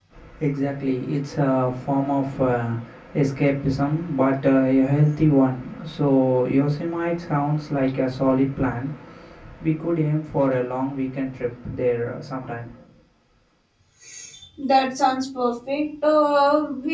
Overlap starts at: none

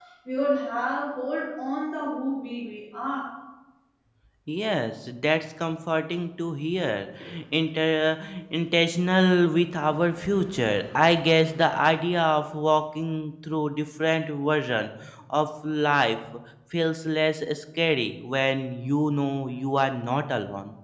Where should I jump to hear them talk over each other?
none

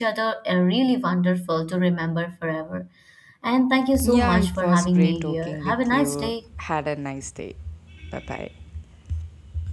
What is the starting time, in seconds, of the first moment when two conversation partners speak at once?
4.0 s

